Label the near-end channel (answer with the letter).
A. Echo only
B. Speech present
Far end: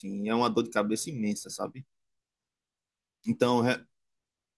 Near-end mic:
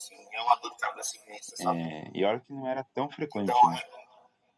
B